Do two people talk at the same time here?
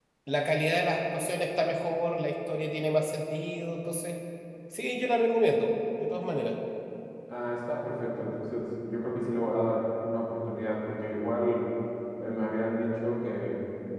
No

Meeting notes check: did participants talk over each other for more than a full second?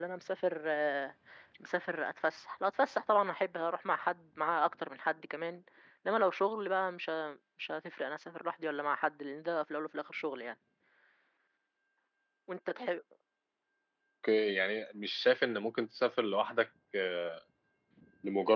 No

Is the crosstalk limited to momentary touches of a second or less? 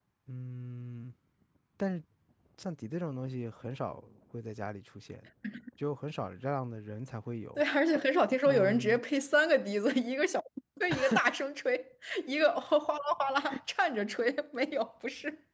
Yes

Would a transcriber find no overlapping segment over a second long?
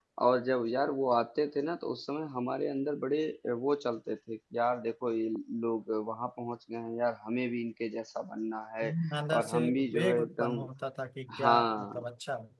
No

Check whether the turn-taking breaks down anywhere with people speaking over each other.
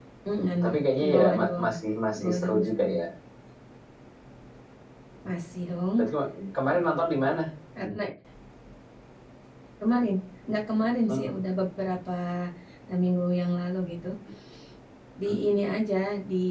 Yes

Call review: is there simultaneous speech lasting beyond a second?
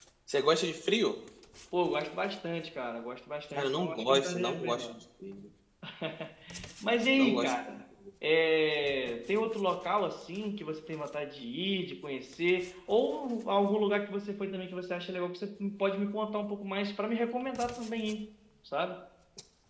Yes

